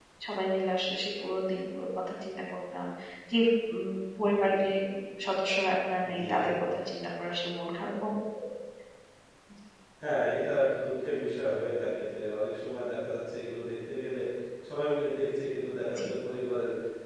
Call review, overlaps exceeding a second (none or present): none